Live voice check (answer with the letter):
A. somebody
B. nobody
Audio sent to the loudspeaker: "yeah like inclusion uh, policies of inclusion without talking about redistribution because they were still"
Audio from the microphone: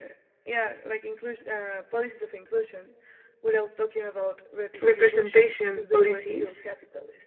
A